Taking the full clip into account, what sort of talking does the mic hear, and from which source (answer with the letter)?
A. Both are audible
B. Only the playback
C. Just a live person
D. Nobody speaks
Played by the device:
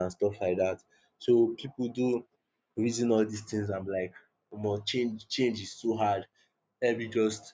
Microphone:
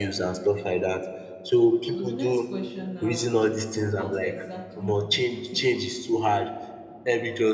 A